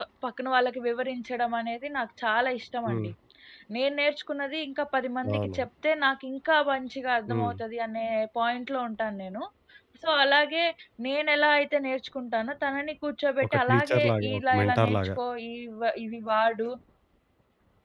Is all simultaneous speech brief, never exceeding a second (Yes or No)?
No